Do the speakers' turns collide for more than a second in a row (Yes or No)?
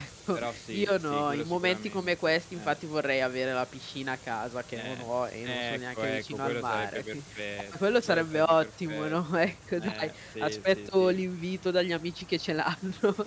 Yes